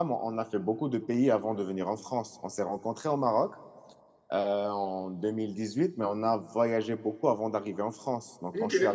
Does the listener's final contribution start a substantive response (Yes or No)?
No